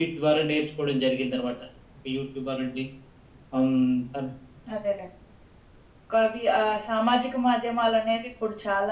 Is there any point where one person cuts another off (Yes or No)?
No